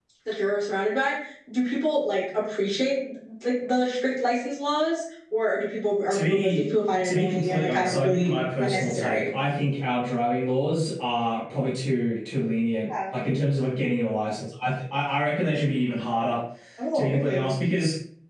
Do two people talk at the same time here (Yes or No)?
Yes